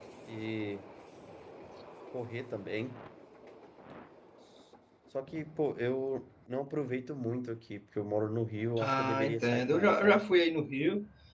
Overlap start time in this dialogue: 8.8 s

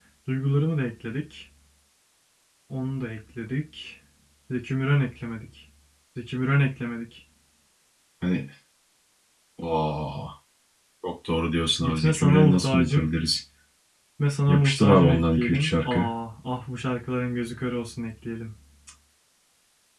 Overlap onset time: 11.8 s

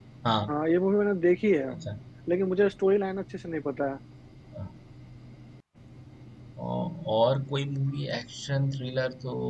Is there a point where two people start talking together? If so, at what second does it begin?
none

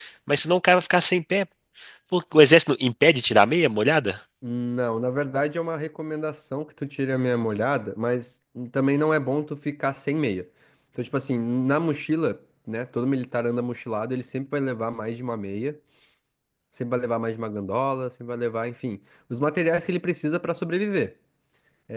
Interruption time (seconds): none

